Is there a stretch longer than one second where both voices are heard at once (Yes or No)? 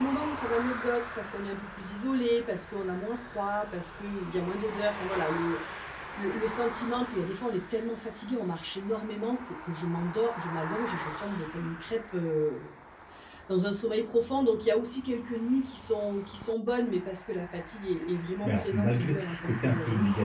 Yes